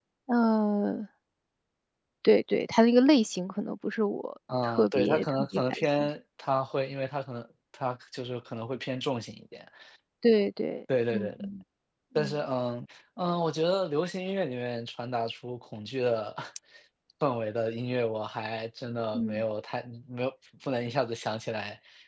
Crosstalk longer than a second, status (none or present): present